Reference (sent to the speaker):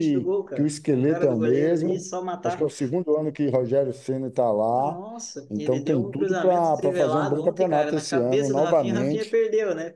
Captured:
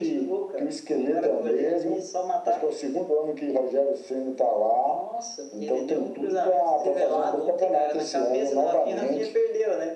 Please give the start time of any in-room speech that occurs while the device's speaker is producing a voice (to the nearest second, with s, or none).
none